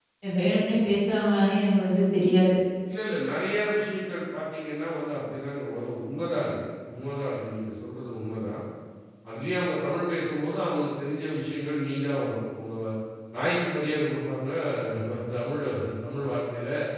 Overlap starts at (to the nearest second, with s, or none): none